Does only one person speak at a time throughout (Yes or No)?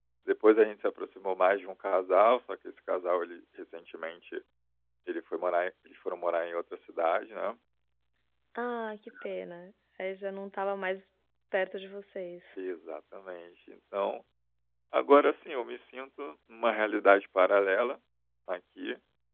Yes